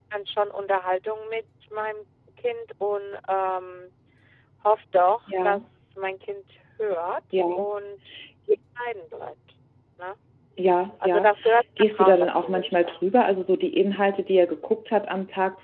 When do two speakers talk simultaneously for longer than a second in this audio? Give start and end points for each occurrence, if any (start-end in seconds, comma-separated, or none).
11.8-13.0